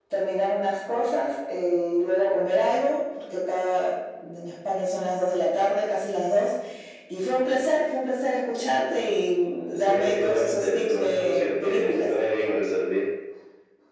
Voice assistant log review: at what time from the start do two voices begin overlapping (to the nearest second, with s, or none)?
10 s